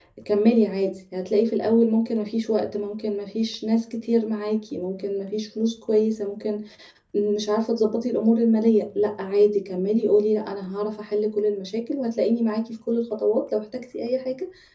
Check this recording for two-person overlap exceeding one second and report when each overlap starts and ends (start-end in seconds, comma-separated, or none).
none